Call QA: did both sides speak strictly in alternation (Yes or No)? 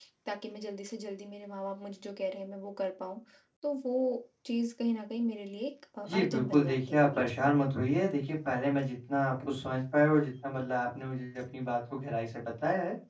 No